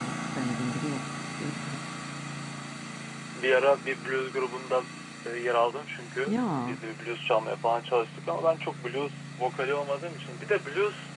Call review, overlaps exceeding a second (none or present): none